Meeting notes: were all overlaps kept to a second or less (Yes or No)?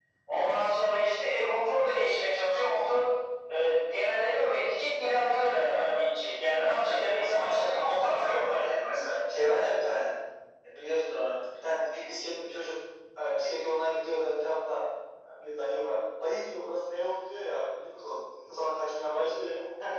No